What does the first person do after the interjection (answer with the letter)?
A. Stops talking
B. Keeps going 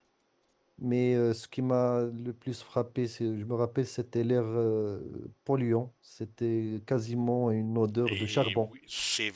A